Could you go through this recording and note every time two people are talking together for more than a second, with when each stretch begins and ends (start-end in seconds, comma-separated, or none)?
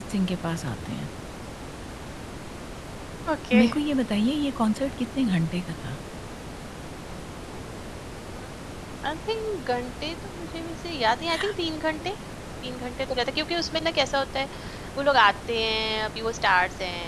none